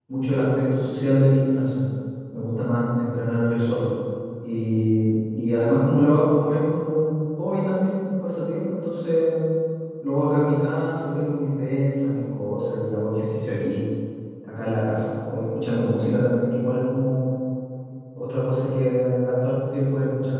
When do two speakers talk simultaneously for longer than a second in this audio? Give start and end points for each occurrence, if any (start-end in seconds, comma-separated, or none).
none